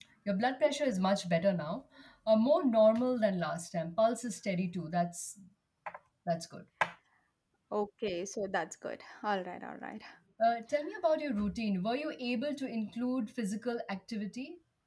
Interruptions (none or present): none